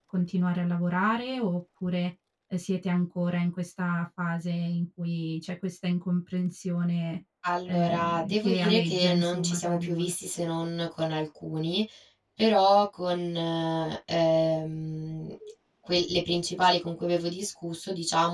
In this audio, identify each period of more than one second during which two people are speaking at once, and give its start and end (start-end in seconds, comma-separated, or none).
7.7-10.1